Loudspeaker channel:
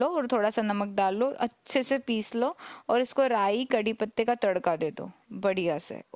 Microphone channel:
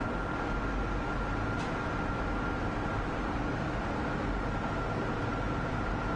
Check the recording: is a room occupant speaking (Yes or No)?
No